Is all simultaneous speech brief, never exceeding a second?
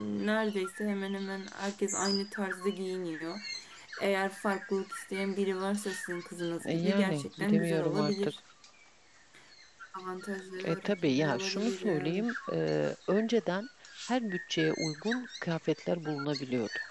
No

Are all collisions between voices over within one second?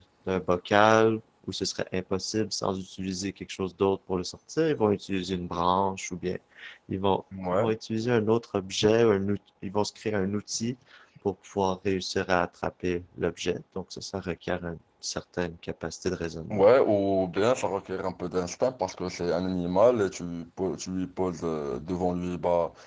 Yes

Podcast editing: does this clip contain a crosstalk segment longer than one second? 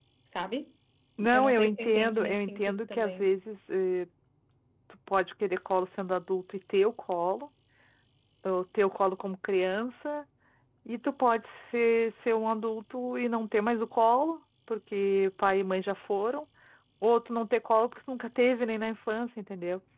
Yes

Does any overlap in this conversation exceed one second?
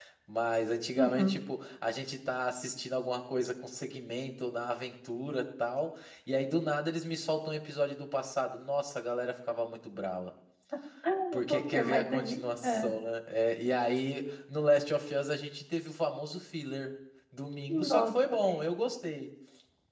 Yes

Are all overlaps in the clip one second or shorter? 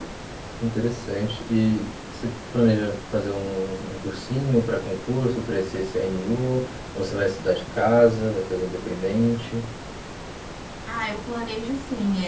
Yes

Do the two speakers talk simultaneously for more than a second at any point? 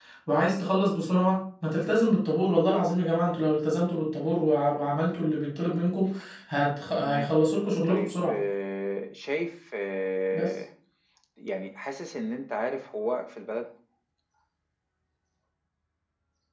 No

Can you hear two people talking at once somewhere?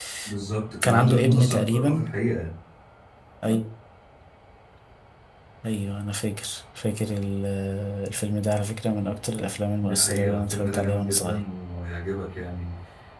Yes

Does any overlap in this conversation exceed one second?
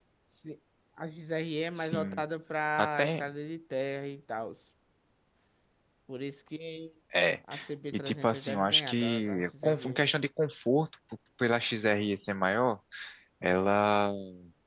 Yes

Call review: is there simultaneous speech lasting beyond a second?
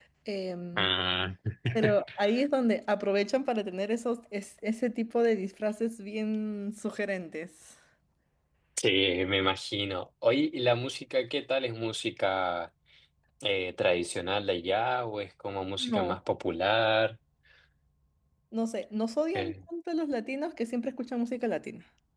No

